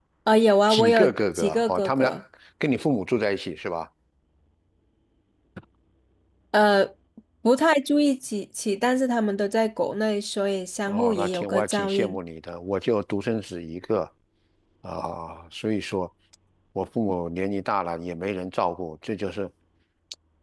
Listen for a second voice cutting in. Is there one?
Yes, from 0.7 s

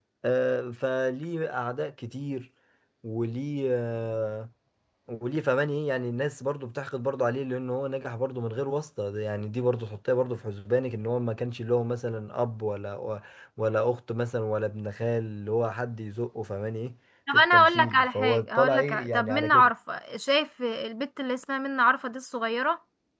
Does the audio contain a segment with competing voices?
Yes, from 17.3 s

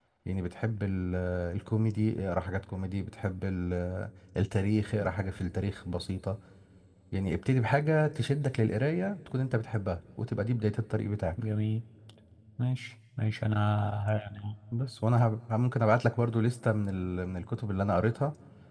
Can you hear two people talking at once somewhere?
No

